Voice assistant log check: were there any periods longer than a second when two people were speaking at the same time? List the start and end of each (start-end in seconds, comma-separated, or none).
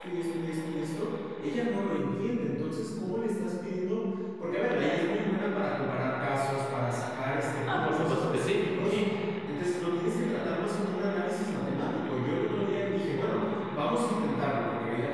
7.7-9.0